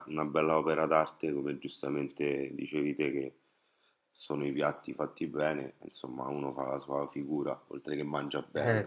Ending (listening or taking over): taking over